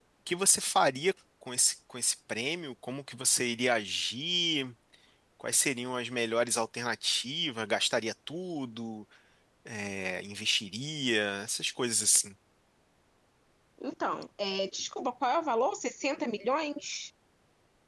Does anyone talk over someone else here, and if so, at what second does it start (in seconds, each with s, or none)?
none